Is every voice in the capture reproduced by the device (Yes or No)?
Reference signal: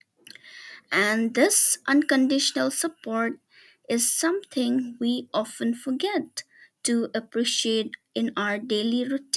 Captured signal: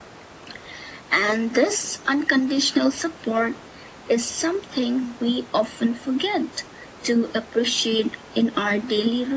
Yes